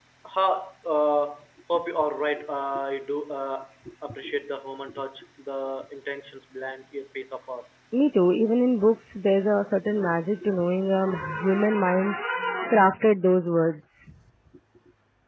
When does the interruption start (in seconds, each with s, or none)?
none